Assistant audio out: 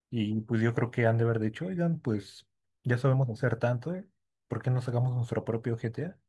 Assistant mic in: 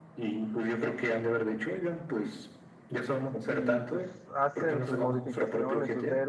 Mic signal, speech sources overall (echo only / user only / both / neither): both